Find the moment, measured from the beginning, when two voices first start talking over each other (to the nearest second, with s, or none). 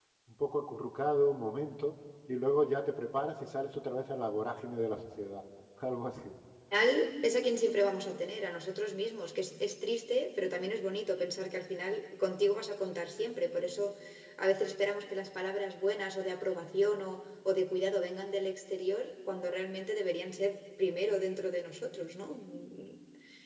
none